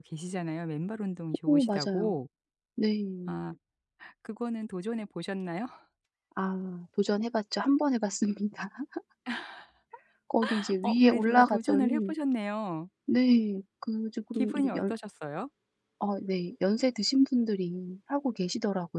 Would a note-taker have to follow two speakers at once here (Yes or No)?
Yes